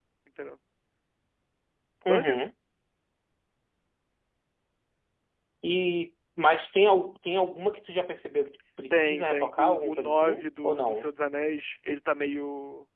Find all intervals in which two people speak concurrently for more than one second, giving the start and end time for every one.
8.9-11.1

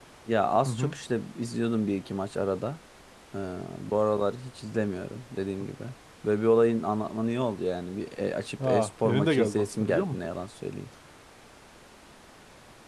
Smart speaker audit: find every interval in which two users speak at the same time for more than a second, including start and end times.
8.6-10.2

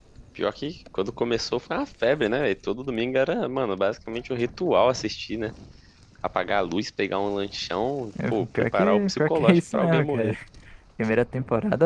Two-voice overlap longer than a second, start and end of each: 8.3-10.4

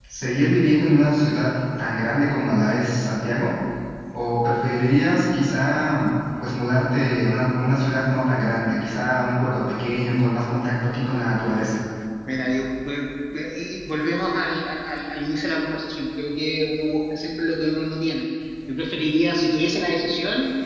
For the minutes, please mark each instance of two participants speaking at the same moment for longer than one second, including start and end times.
none

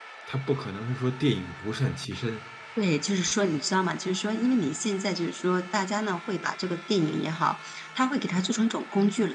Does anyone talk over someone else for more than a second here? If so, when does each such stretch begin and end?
none

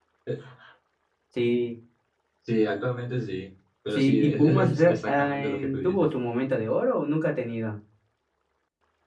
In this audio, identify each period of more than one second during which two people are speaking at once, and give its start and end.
4.0-6.1

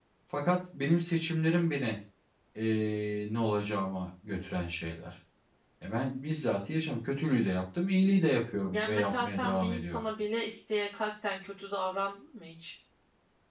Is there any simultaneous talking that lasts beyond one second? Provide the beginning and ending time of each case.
8.7-10.0

